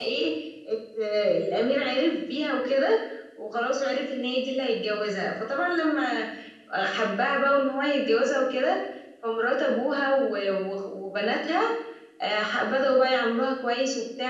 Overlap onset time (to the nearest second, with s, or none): none